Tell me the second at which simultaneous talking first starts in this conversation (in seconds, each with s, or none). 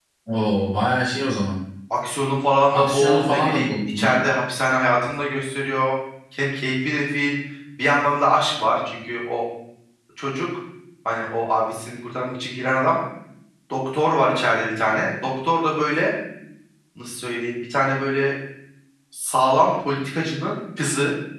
2.7 s